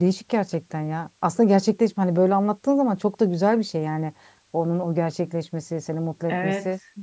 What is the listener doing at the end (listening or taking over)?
taking over